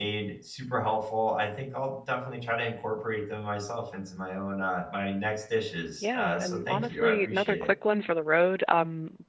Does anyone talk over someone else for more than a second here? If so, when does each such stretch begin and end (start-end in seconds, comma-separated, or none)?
6.0-7.7